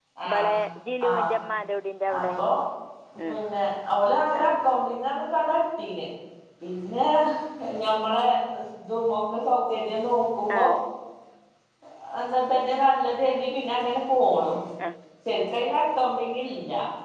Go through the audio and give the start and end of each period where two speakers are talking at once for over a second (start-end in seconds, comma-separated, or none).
none